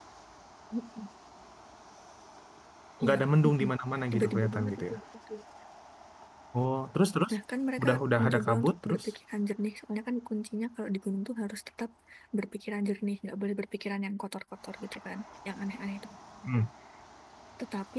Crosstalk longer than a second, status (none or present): present